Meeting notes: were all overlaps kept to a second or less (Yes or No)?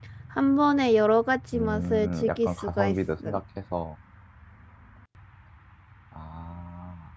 No